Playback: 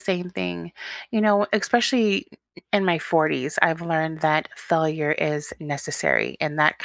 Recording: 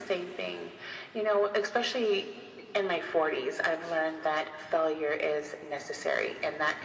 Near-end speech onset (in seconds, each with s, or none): none